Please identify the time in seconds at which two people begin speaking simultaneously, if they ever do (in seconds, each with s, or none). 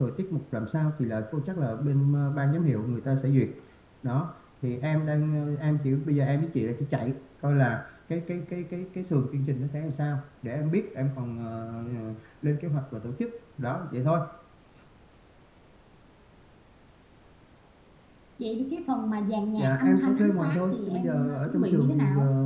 19.6 s